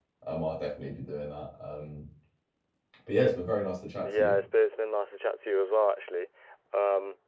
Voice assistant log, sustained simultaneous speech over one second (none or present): none